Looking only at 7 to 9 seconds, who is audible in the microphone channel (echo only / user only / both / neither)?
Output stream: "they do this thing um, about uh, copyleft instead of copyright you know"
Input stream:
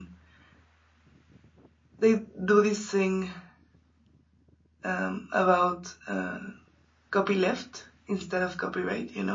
echo only